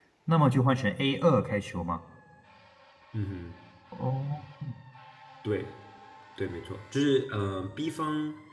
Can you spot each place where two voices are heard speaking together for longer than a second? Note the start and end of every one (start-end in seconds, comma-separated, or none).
none